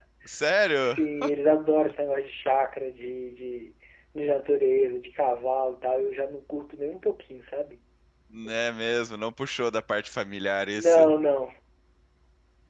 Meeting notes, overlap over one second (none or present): none